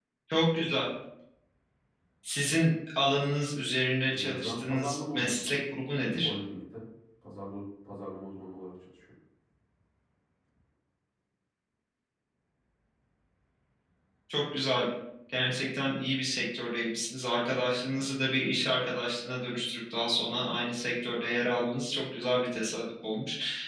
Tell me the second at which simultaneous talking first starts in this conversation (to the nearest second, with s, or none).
4 s